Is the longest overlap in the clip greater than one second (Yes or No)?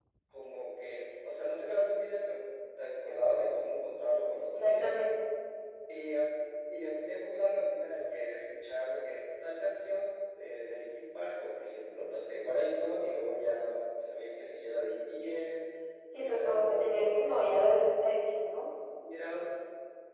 Yes